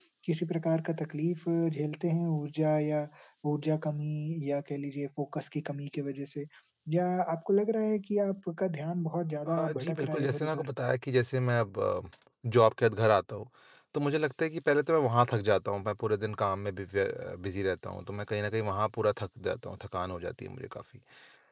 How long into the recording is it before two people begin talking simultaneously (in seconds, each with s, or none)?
9.5 s